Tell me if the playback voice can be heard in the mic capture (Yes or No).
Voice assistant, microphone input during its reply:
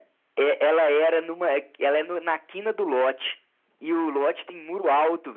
Yes